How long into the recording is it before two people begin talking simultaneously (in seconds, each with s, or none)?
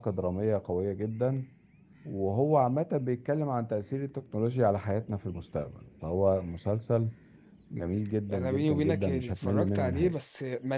8.3 s